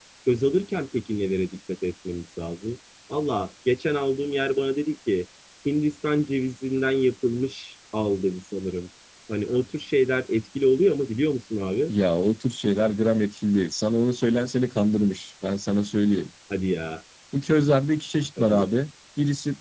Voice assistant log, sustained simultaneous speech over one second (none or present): none